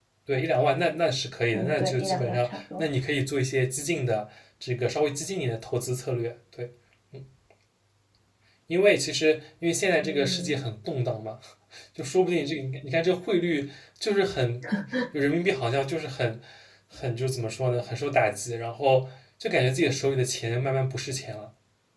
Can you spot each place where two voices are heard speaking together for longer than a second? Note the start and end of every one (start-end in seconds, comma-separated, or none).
1.5-2.8